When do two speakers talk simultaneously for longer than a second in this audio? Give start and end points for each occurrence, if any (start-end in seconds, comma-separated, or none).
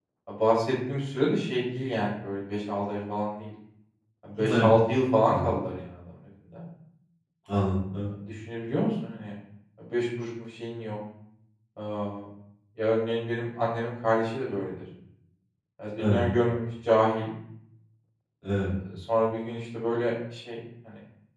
none